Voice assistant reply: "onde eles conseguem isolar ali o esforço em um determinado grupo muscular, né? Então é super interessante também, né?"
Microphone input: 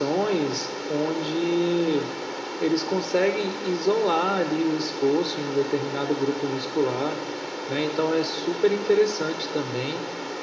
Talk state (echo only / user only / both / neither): echo only